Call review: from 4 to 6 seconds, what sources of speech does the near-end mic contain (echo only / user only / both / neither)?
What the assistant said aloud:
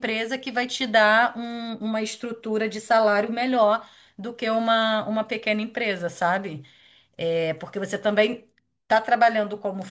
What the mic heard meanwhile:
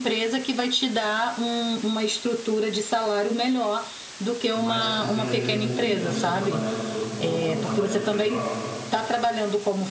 both